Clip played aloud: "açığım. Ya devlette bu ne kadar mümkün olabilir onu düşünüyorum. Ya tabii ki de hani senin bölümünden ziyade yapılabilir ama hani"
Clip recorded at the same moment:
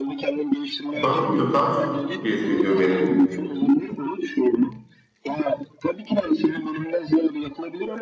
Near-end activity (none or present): present